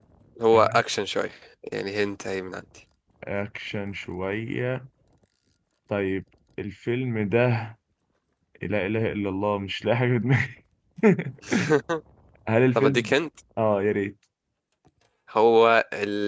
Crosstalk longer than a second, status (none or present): none